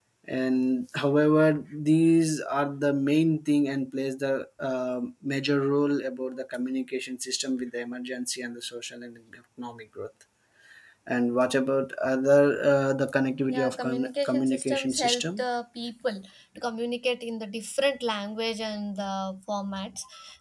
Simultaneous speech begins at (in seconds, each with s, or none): 13.5 s